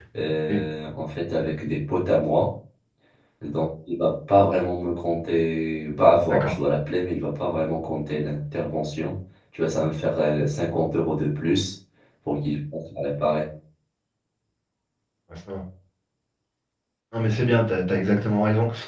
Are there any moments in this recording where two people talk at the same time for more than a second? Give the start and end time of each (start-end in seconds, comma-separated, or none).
none